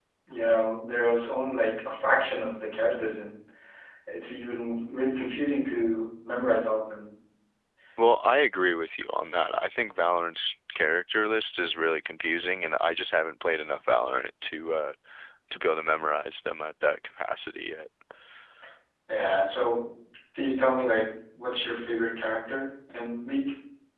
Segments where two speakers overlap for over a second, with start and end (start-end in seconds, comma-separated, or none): none